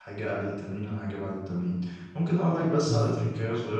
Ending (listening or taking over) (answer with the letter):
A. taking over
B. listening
B